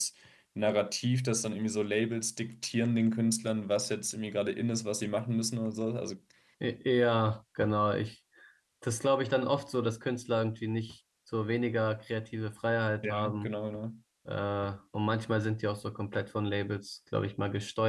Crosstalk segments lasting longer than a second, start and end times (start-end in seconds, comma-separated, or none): none